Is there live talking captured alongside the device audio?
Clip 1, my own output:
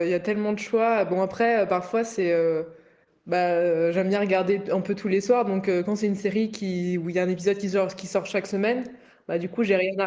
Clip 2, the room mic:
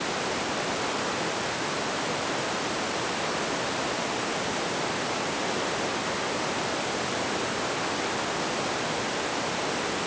No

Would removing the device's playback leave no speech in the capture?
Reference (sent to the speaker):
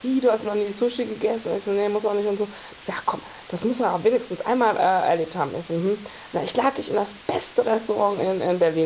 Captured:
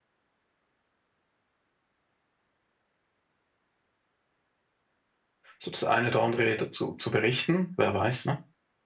No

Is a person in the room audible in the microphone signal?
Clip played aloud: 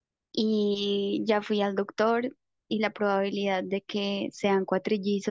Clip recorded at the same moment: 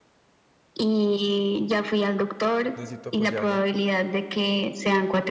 Yes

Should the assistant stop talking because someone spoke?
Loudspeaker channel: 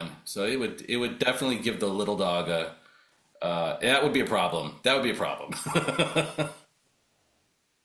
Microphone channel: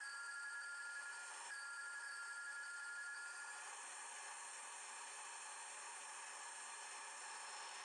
No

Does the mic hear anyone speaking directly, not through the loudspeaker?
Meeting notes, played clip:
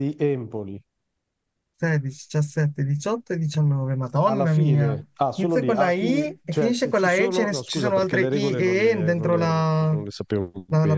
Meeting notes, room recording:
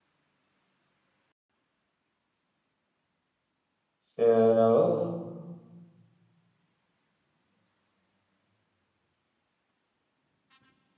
Yes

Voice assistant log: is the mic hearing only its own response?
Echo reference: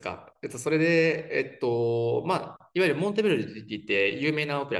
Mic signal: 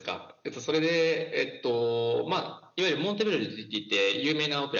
Yes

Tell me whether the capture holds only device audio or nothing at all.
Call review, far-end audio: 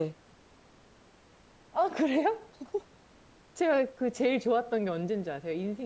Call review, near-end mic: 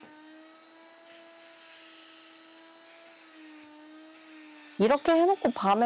No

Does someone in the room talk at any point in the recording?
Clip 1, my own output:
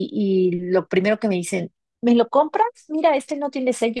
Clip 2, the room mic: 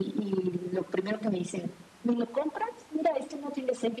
No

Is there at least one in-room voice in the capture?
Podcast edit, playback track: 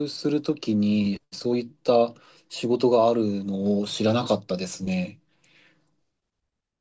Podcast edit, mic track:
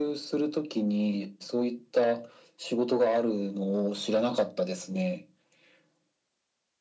No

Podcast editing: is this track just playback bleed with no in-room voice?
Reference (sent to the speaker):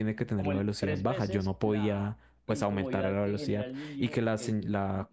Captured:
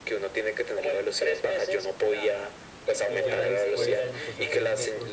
No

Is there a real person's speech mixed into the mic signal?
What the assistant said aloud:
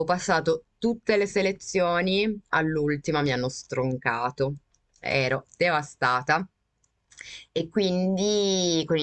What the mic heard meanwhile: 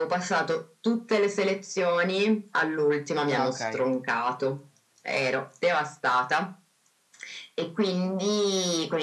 Yes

